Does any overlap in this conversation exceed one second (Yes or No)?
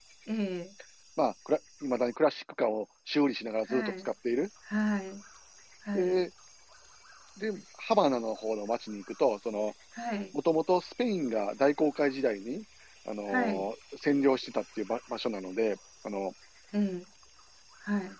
No